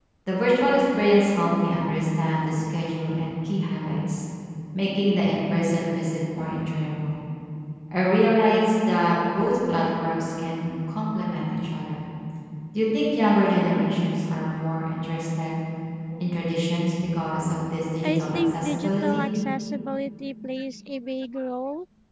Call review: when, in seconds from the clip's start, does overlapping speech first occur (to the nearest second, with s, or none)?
18 s